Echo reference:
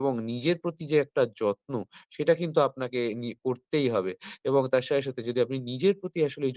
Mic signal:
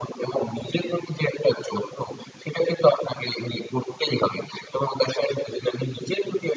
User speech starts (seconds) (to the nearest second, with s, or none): none